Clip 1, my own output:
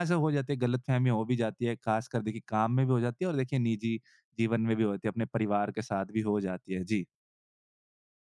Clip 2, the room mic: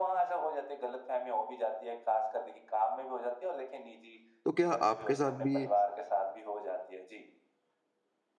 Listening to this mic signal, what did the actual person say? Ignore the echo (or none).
तो क्या आपके साथ भी